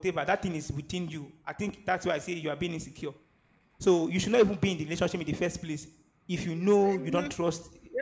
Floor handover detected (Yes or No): Yes